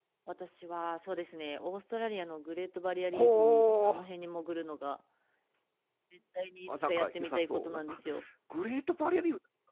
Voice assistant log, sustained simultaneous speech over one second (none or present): present